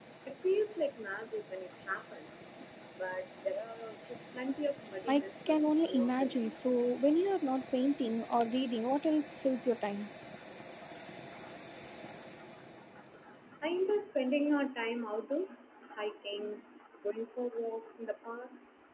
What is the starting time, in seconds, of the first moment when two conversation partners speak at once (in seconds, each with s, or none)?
5.1 s